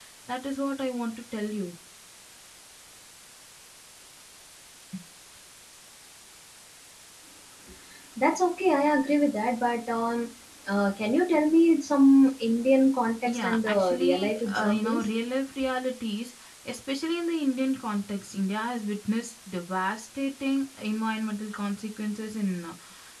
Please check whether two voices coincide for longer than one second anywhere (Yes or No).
Yes